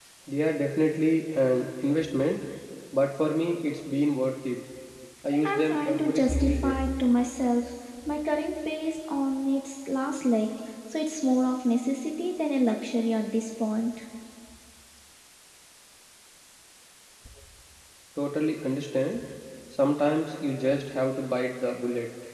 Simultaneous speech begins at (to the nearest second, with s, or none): 5 s